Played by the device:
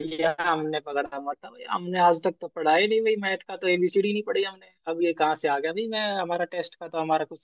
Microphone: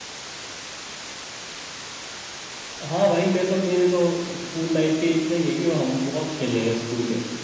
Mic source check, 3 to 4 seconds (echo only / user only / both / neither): user only